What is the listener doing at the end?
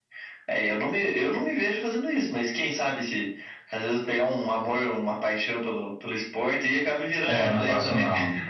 taking over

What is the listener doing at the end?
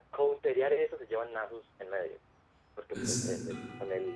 listening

